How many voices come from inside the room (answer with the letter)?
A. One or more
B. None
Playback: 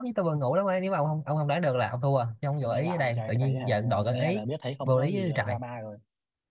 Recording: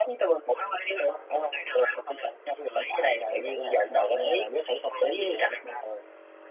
B